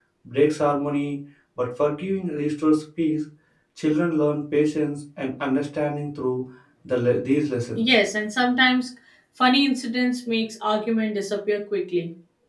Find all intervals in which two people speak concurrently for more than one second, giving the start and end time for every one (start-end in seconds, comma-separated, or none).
none